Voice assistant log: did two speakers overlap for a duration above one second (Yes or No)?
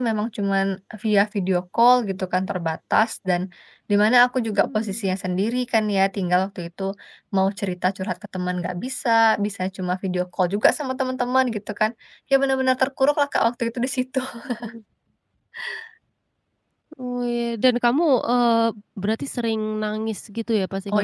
No